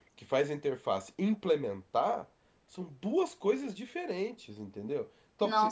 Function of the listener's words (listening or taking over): listening